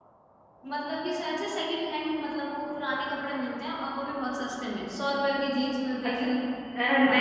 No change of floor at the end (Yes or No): No